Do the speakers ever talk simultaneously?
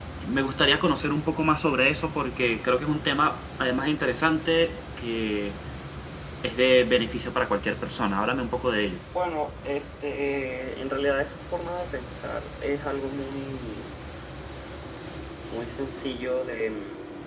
No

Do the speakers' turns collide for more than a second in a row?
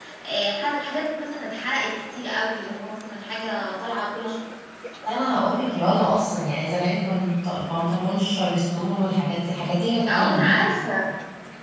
No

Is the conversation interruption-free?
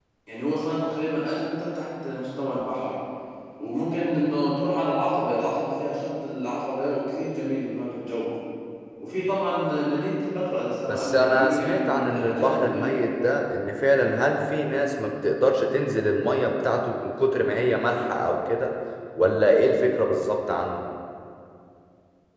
No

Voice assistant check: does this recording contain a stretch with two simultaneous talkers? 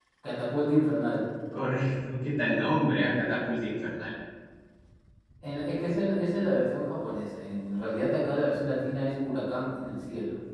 No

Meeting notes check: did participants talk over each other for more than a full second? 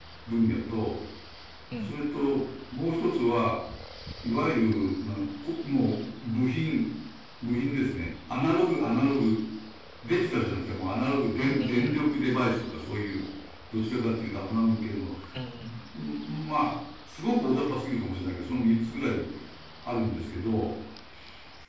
No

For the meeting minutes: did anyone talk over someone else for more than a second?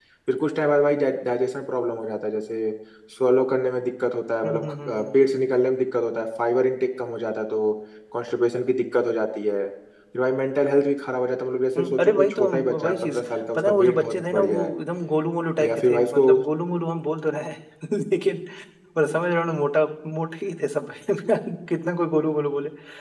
Yes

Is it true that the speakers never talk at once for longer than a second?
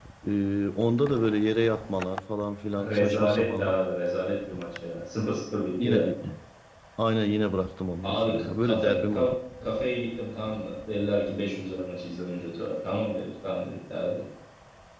No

